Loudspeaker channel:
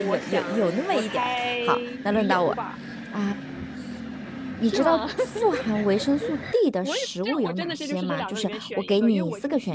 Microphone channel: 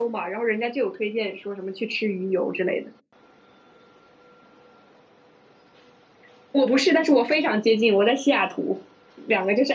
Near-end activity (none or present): present